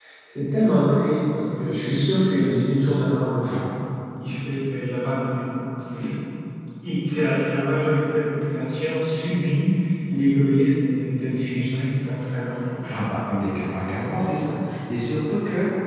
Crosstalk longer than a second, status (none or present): none